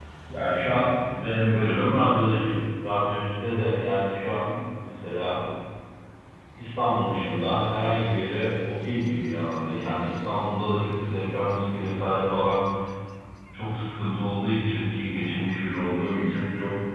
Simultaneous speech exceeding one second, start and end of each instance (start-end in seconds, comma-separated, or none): none